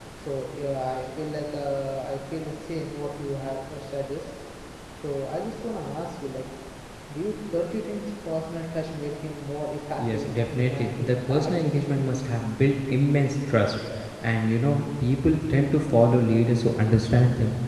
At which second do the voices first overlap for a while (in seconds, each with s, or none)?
10.0 s